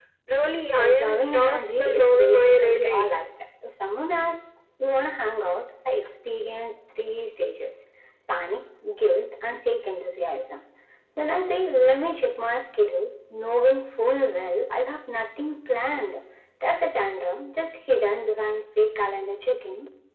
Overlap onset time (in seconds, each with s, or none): 0.8 s